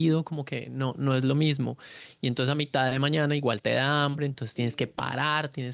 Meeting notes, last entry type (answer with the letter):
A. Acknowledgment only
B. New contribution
A